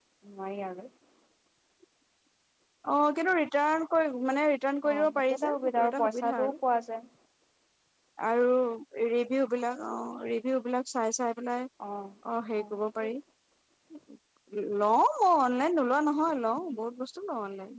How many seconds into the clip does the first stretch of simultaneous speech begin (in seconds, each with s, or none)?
4.9 s